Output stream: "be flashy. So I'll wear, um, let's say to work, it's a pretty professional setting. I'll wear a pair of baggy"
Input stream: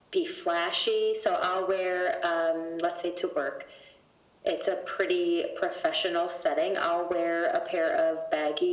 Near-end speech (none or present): none